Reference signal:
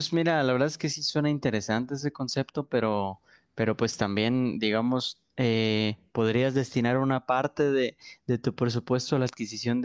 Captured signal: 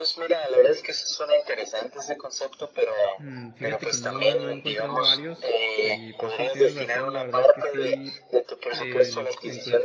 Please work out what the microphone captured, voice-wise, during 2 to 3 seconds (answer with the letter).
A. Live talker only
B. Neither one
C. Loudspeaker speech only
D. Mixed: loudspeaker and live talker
C